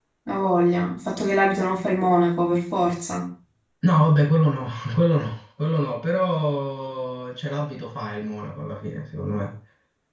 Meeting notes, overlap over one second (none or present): none